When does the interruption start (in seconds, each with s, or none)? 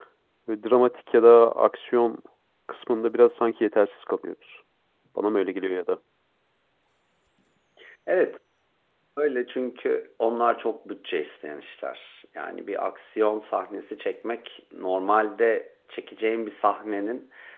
none